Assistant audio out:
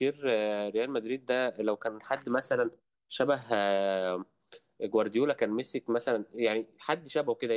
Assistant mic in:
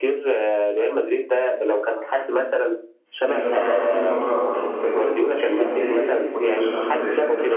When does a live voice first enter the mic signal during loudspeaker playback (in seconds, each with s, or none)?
3.2 s